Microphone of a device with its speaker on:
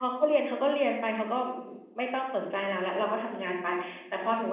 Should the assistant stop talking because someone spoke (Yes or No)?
No